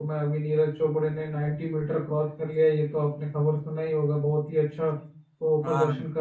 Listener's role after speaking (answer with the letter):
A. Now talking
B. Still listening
B